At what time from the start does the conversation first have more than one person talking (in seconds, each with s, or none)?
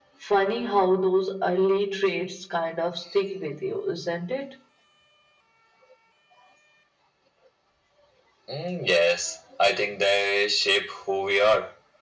none